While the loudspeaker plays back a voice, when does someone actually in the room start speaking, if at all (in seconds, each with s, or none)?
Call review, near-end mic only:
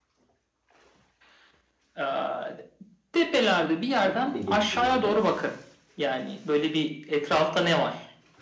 4.0 s